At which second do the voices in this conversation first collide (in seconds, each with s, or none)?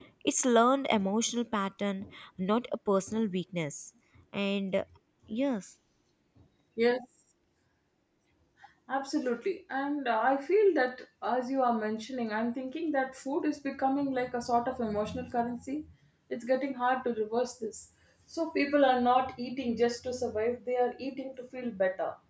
none